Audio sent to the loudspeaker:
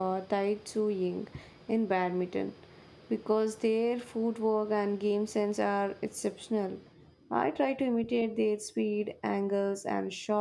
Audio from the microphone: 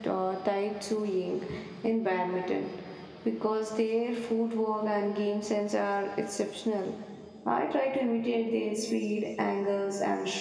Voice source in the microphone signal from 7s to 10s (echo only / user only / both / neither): echo only